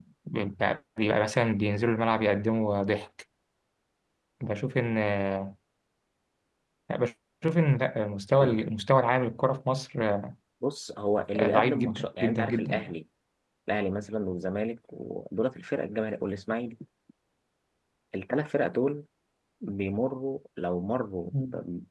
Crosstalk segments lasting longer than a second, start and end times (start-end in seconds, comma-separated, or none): 11.3-12.9